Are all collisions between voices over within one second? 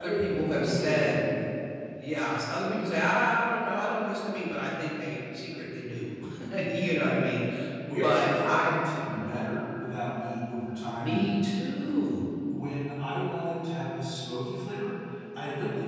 No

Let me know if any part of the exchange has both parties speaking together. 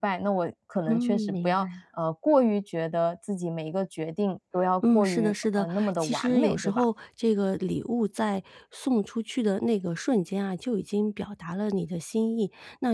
Yes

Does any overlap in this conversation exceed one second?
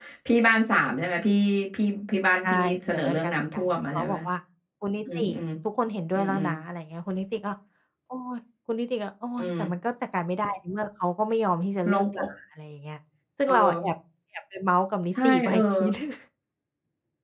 Yes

